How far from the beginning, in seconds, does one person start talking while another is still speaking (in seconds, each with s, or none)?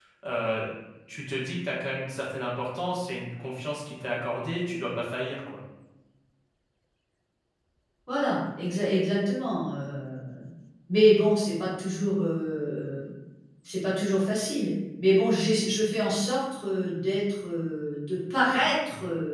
none